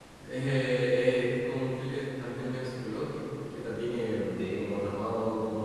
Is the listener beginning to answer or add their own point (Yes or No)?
No